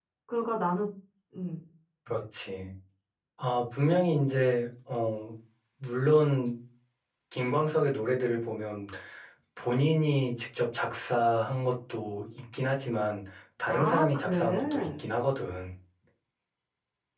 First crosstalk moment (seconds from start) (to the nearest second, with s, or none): 14 s